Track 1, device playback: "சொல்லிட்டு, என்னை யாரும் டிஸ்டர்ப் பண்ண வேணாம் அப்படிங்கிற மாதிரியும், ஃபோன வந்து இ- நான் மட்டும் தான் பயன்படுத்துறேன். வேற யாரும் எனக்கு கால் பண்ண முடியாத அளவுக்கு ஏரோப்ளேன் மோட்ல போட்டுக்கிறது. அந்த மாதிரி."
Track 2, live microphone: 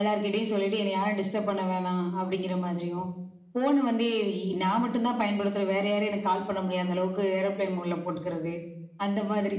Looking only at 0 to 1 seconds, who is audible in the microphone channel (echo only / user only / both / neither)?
echo only